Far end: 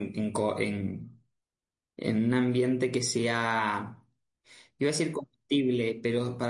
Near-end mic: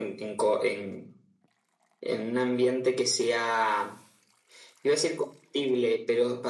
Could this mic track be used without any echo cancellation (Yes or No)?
No